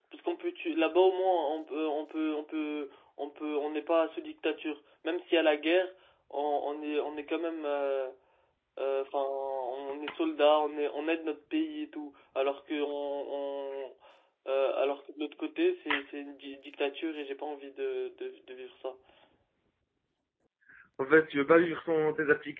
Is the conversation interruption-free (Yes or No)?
Yes